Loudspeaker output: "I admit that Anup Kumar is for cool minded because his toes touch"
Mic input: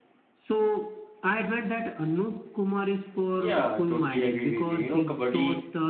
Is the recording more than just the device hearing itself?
Yes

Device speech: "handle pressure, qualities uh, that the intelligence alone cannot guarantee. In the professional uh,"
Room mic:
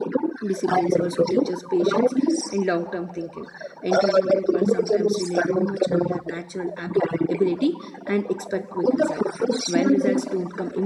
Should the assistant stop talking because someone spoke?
Yes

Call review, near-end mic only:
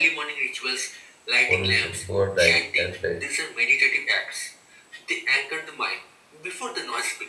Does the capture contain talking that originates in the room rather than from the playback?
Yes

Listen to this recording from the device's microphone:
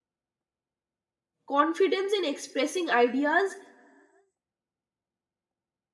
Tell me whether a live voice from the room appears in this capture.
Yes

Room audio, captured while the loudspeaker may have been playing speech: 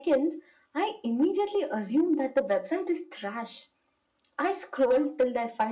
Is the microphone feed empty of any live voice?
Yes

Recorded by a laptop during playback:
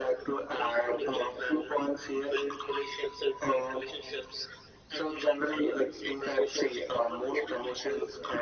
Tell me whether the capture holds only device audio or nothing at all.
Yes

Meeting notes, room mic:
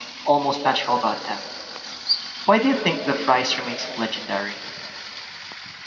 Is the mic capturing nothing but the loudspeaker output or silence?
No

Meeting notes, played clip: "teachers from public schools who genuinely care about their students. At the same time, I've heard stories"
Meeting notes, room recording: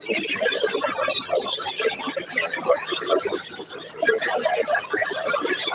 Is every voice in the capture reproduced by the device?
Yes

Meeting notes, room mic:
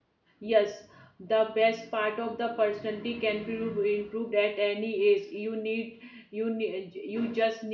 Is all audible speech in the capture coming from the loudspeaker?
No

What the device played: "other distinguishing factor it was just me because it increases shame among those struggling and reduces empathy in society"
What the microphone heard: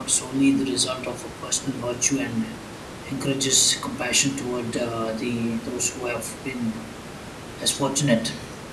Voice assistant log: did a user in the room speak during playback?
Yes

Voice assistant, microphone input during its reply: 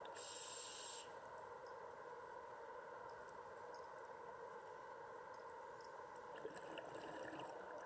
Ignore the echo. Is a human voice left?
No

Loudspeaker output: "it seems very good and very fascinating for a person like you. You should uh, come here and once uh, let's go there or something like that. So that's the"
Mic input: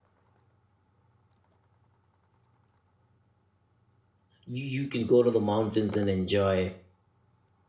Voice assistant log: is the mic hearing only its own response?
No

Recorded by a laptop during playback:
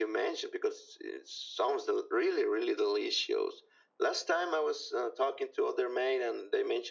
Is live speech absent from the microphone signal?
Yes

